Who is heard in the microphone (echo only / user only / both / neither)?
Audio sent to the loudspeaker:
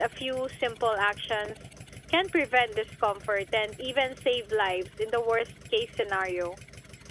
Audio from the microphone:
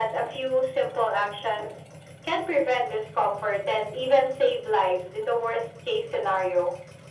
echo only